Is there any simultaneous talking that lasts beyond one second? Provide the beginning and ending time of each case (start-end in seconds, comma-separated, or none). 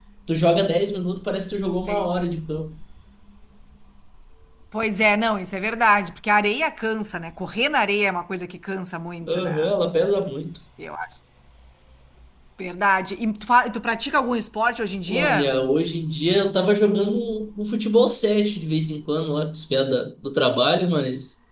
none